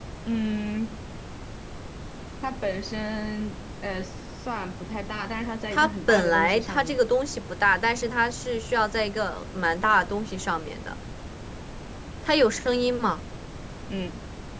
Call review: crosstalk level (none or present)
present